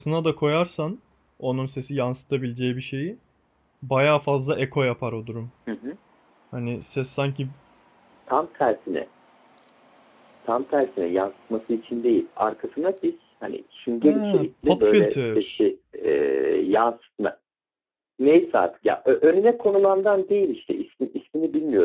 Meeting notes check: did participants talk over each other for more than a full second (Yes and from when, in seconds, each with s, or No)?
Yes, from 14.0 s